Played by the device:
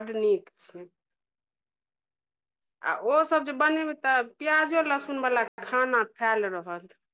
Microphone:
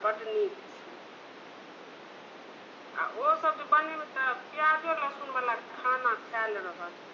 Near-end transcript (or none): none